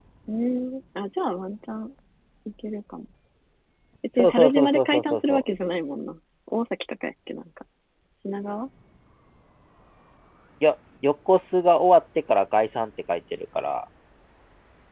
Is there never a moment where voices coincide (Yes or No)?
No